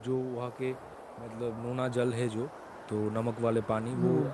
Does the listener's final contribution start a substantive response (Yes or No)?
No